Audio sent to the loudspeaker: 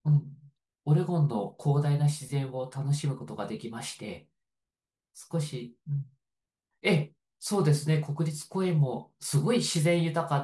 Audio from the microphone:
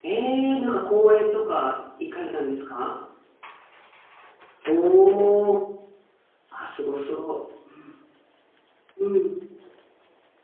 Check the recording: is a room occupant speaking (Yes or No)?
Yes